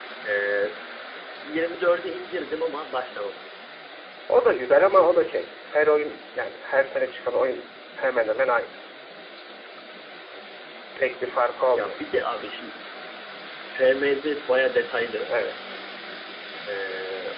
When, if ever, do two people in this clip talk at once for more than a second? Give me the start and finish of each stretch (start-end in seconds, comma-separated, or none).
none